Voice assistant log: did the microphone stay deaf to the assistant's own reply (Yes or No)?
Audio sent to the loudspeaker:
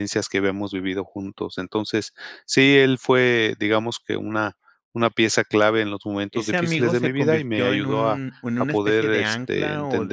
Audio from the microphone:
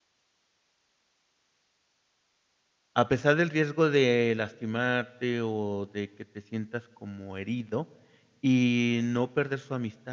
Yes